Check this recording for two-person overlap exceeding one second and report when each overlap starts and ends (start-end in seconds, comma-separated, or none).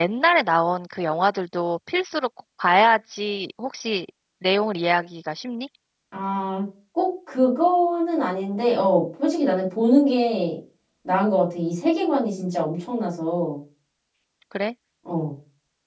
none